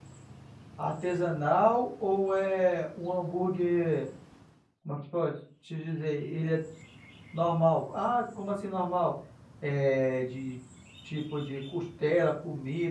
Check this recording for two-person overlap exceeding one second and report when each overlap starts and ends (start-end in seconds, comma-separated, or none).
none